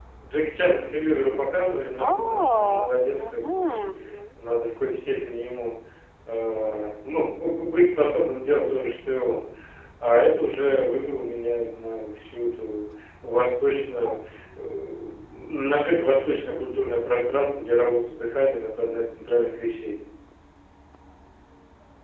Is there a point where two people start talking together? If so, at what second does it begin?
2.0 s

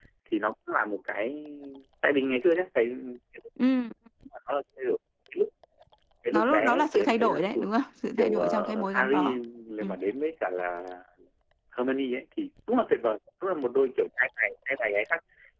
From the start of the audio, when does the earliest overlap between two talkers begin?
6.3 s

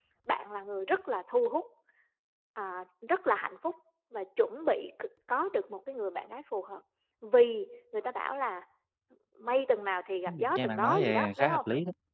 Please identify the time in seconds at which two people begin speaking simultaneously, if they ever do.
10.3 s

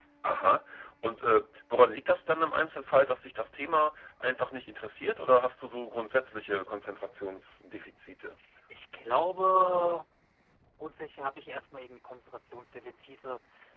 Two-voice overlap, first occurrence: none

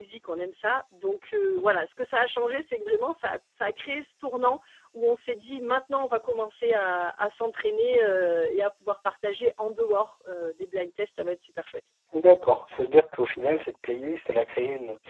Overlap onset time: none

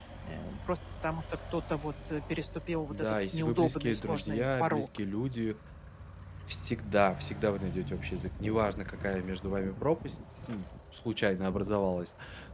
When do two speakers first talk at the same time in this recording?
2.9 s

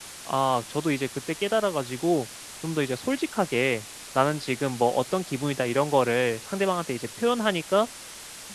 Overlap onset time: none

